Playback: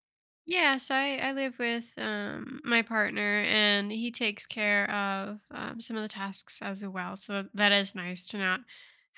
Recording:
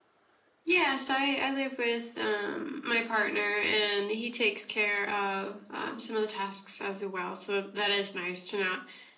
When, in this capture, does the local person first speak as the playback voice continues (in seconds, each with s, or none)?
none